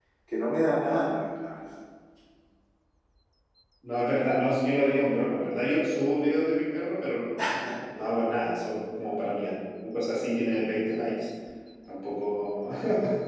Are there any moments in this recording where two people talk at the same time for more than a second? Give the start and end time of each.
none

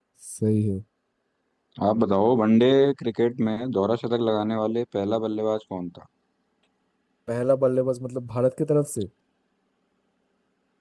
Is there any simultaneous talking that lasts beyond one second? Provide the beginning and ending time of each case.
none

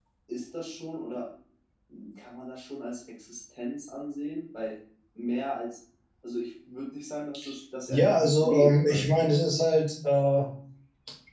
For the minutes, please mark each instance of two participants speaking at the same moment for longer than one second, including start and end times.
7.9-9.3

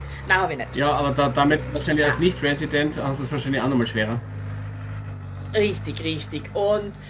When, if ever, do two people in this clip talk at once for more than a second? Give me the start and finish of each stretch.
none

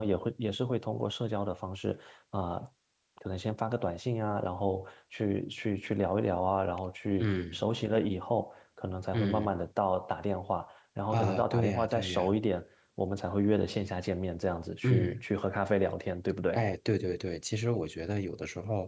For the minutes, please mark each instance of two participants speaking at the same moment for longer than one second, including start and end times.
11.1-12.4

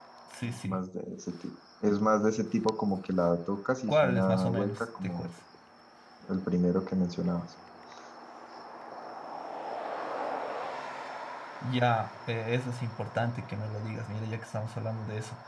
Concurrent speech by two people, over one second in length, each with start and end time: 3.9-5.3

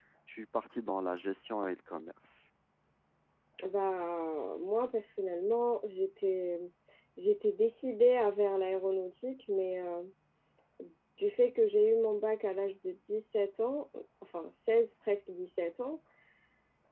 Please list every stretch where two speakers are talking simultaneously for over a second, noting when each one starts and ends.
none

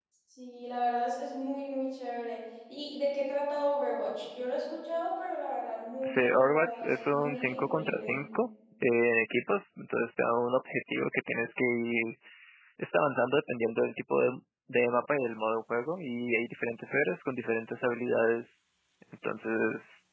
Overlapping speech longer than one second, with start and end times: 6.0-8.2

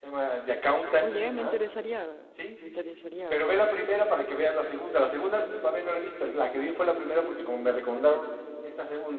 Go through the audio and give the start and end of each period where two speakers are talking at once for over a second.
none

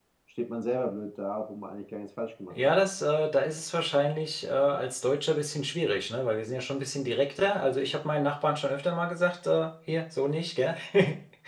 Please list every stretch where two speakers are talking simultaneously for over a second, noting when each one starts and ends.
none

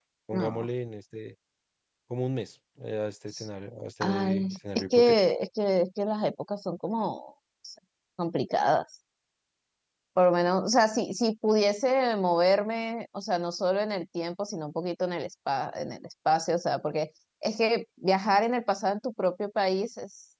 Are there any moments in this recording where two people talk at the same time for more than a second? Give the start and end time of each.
4.0-5.2

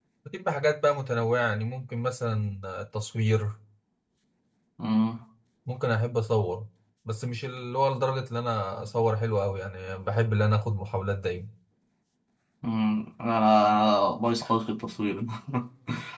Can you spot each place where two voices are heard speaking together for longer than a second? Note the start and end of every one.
none

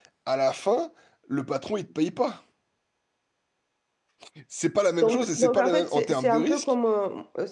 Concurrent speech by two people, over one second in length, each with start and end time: 5.0-6.7

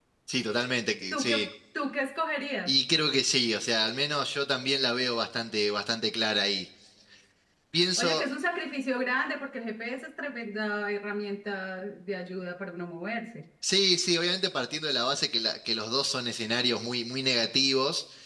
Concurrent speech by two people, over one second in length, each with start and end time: none

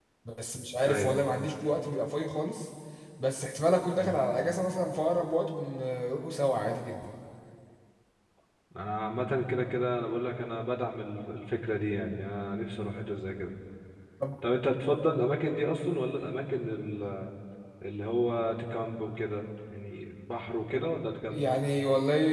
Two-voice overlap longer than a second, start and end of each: none

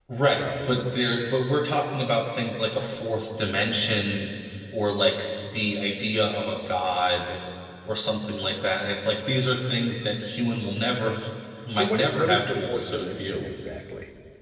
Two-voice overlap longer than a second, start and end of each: 11.7-13.5

